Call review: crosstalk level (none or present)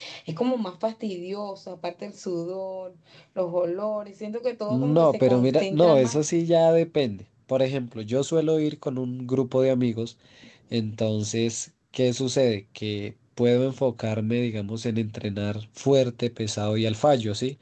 present